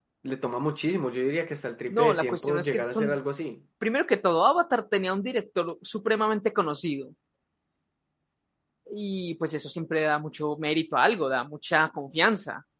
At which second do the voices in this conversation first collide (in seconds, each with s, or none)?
1.9 s